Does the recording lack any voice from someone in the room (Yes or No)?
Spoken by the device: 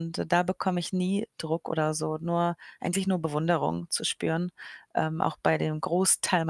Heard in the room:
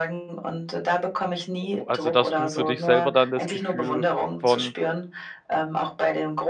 No